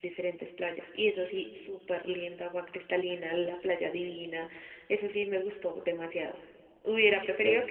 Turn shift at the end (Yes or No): No